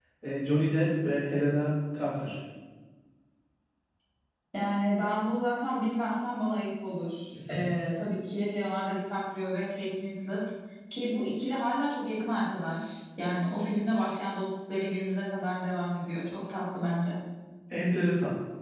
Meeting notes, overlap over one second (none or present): none